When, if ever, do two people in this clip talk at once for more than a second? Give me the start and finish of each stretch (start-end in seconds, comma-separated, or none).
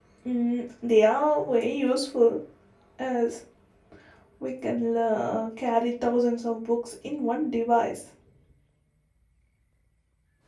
none